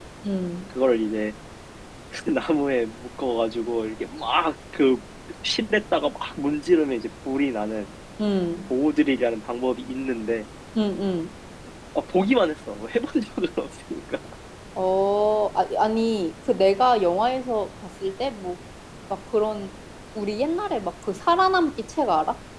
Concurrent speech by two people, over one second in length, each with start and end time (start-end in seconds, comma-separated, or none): none